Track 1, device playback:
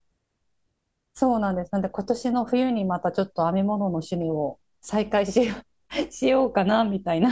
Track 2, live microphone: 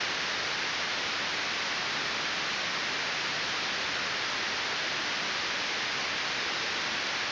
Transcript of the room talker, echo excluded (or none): none